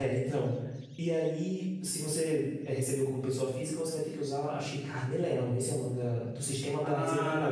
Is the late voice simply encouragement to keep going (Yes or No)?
No